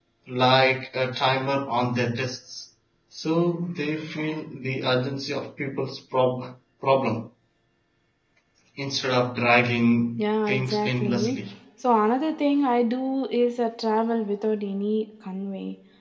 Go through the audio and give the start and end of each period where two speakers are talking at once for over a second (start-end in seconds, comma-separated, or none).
10.2-11.4